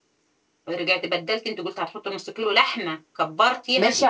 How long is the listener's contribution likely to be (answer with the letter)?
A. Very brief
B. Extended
B